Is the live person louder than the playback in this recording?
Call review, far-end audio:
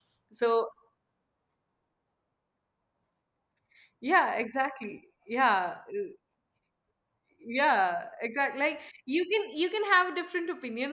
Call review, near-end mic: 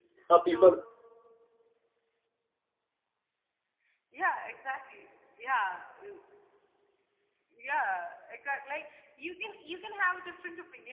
Yes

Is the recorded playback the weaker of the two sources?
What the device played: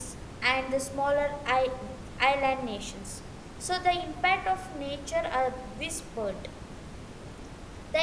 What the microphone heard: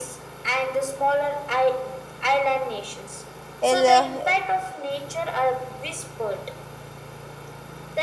Yes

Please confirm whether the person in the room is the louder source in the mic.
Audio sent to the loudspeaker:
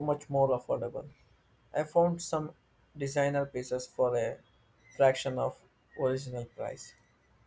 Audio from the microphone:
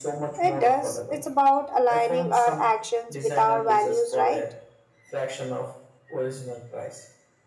Yes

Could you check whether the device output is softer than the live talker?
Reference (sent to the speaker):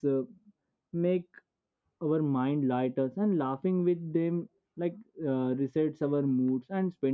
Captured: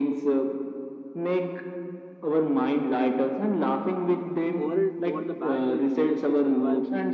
No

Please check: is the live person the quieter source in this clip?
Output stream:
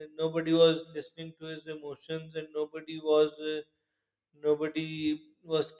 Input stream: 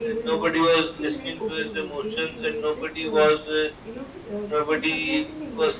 Yes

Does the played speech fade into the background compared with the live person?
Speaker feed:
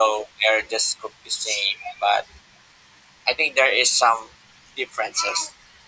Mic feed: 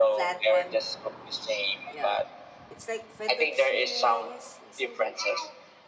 No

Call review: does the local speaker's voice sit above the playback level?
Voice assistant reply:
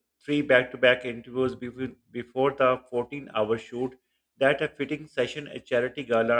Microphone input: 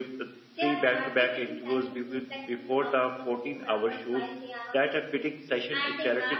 No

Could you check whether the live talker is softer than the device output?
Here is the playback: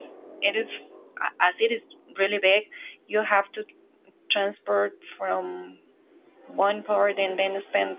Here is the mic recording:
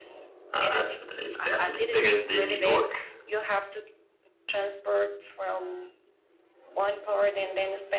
No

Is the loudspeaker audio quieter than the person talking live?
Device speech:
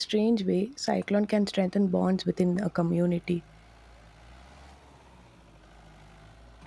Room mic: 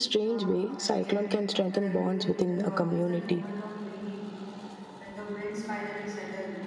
No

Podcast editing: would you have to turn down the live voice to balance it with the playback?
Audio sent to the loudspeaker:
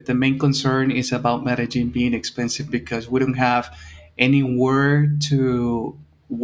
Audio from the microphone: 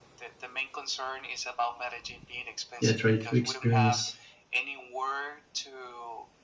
Yes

